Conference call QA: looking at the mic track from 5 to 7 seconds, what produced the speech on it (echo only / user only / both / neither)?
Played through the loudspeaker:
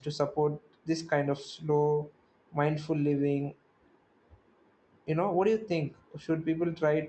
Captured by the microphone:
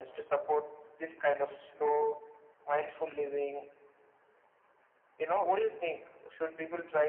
echo only